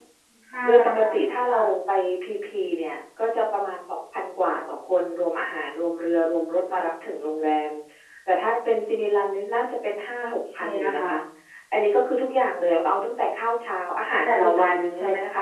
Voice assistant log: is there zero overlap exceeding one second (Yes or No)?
No